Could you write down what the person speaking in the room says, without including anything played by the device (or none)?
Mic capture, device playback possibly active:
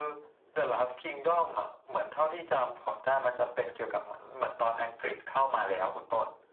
none